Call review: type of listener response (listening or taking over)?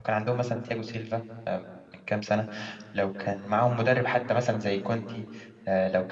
taking over